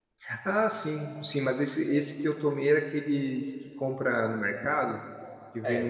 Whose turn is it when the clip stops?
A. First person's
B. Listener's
B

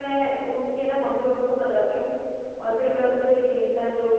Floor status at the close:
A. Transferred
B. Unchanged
B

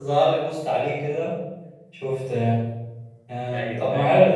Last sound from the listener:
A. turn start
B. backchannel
B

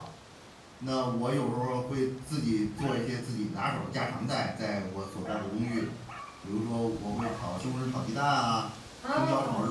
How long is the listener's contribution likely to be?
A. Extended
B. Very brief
B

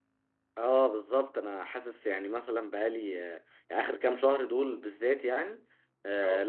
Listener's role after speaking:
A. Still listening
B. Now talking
A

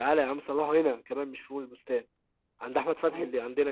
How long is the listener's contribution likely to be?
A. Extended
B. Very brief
B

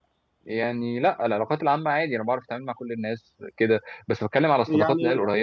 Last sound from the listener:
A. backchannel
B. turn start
A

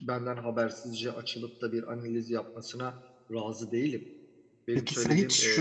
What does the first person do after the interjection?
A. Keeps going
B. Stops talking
B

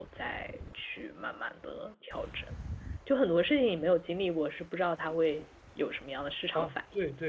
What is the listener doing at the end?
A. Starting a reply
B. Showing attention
A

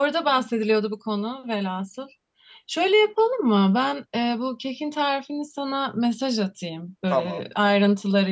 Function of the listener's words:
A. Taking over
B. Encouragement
B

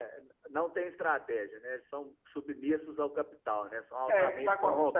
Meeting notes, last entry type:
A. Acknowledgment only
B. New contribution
B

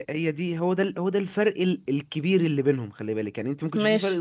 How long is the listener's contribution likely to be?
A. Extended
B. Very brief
B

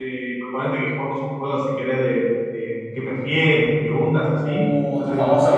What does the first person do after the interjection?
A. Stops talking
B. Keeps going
A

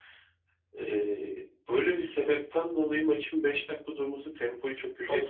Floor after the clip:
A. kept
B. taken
B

